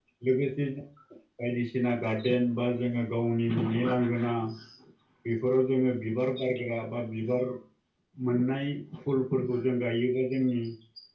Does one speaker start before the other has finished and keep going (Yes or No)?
No